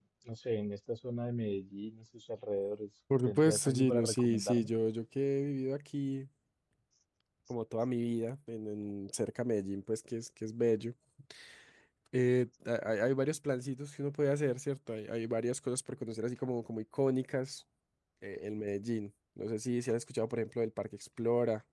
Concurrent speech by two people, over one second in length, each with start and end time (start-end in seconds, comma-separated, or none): 3.2-4.7